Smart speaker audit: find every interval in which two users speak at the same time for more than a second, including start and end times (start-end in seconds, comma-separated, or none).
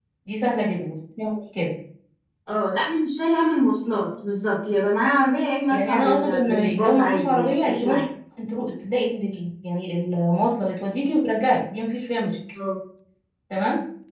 5.7-8.0